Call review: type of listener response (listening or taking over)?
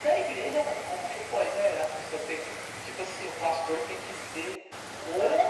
listening